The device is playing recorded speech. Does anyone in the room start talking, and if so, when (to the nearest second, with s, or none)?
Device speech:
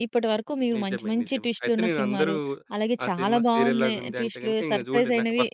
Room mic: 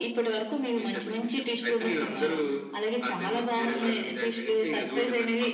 none